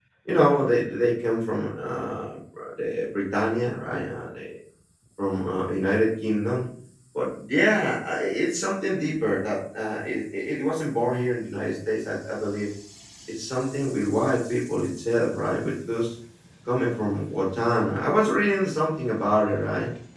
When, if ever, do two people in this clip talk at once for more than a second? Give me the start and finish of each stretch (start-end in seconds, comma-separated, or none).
none